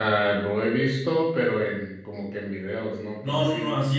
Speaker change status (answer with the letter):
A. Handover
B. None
A